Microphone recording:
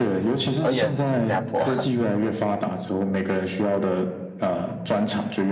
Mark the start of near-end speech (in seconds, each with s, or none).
0.6 s